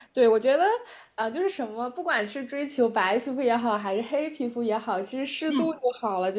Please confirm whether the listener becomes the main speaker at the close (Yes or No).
No